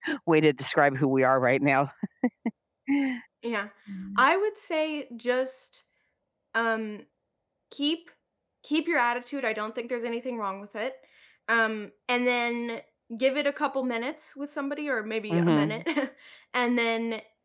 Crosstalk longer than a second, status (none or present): none